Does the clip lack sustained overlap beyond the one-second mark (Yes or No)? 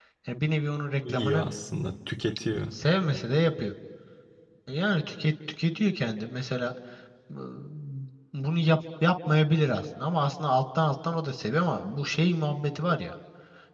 Yes